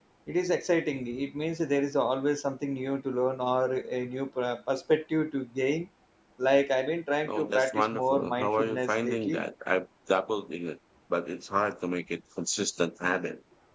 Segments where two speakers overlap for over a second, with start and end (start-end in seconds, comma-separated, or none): 7.2-9.4